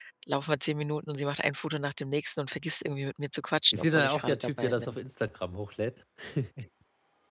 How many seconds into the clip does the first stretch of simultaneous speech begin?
3.7 s

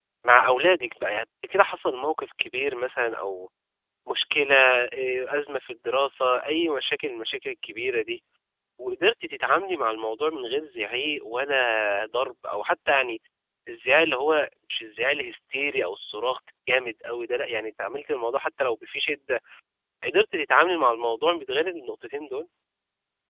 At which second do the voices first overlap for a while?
none

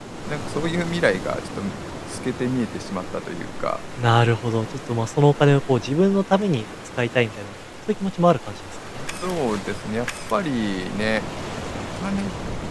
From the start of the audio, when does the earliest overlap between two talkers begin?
none

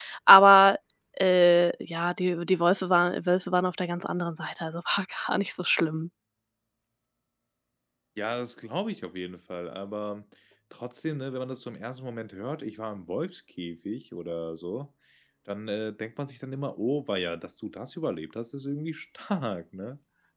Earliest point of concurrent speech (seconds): none

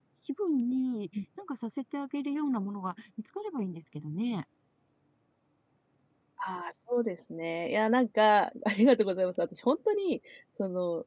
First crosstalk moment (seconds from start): none

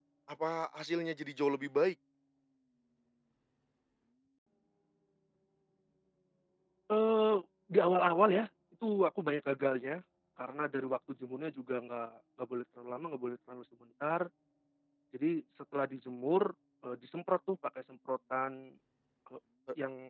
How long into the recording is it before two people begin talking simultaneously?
none

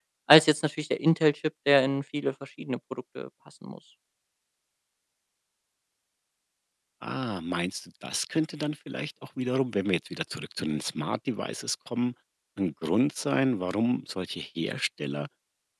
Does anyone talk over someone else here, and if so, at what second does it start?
none

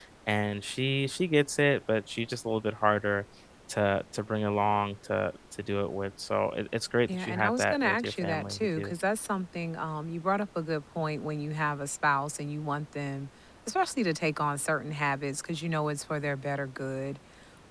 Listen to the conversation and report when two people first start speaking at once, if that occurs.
7.1 s

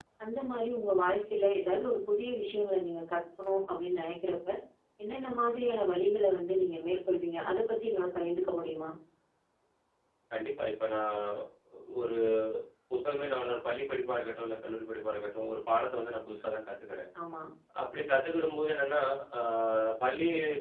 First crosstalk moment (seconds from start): none

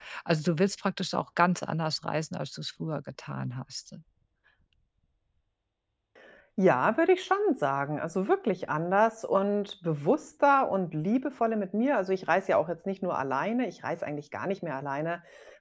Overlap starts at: none

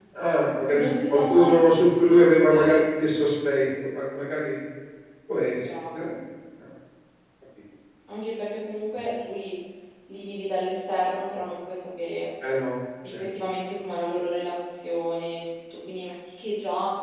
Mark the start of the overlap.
0.8 s

